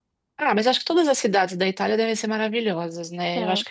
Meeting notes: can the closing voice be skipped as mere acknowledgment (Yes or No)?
Yes